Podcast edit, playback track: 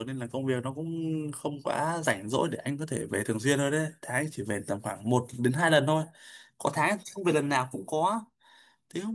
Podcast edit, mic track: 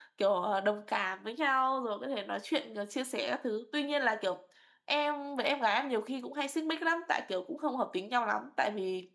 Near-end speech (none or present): present